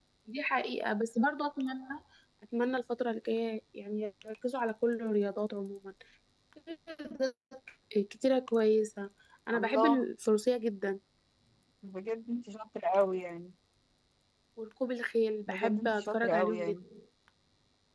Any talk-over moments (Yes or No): Yes